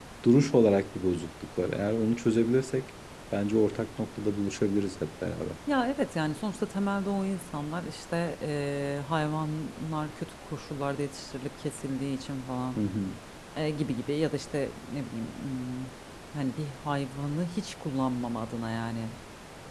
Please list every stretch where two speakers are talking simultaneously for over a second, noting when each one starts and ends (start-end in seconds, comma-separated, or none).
none